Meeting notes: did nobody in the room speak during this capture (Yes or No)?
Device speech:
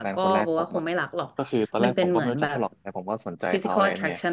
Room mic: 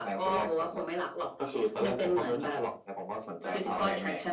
Yes